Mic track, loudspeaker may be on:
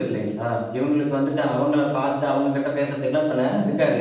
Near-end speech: none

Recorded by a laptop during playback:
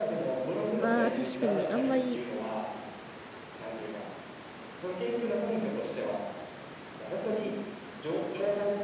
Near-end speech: present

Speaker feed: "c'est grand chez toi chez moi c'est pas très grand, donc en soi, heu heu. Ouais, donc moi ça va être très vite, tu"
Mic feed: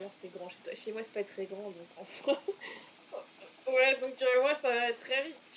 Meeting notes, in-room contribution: none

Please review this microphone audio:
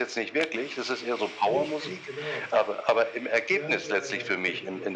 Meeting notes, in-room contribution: present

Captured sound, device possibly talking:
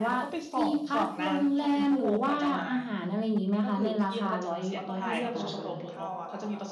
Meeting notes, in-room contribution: present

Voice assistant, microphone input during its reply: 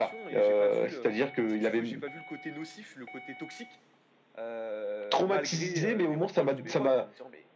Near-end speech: present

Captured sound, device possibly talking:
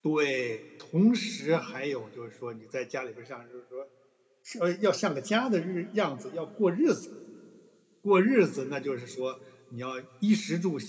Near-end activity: present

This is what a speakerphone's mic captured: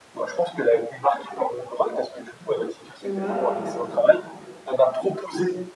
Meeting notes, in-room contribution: present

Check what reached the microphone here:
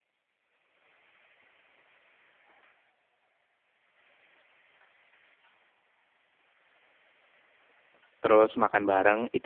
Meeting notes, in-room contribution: present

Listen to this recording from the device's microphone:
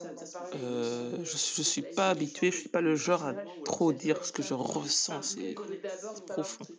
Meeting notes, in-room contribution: present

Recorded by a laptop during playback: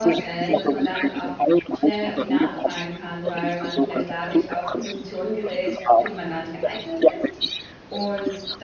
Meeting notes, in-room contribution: present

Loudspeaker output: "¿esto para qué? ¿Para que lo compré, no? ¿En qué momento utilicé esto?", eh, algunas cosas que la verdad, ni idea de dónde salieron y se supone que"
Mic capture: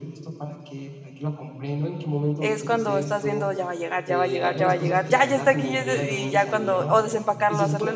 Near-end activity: present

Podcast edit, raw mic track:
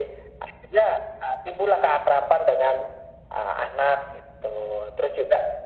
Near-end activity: none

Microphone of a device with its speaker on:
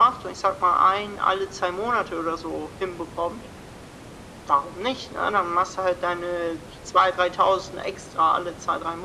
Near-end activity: none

